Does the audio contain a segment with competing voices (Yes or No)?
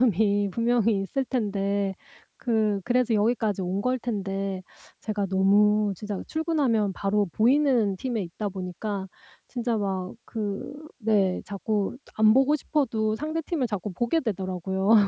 No